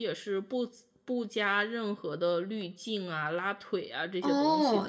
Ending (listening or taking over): taking over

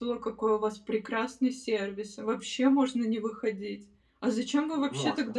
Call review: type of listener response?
listening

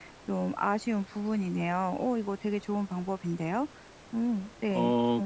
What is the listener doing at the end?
taking over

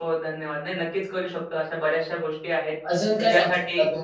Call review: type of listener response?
taking over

